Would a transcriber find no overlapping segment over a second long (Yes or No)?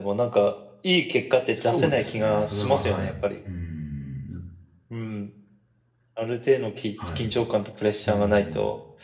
No